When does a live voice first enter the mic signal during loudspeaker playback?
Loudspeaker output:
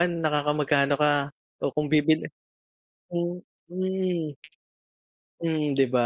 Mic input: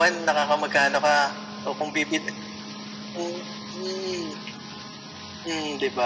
none

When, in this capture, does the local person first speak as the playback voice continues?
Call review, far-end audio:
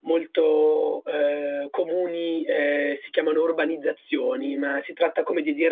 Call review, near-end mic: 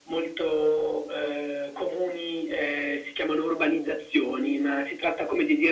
none

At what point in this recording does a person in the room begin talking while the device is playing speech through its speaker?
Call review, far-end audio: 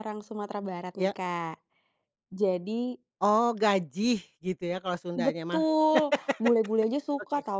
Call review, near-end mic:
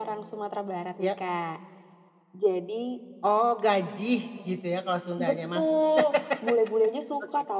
none

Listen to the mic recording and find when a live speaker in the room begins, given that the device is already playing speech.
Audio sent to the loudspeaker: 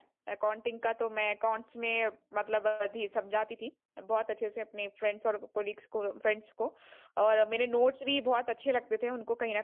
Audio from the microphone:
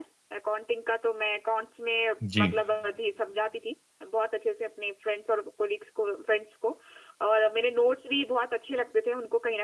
2 s

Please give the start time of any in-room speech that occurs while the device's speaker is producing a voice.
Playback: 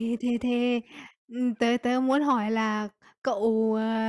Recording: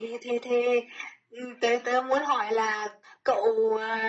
none

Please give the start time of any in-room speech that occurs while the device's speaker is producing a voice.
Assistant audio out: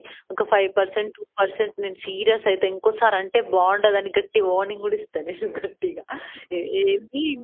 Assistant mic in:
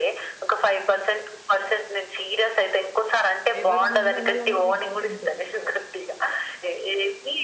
4 s

